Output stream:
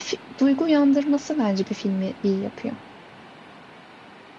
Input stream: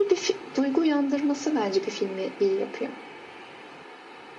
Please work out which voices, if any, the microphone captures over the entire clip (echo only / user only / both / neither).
echo only